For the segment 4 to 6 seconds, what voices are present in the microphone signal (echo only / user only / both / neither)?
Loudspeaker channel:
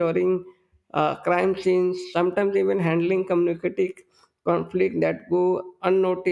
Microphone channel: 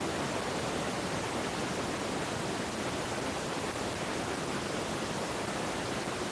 neither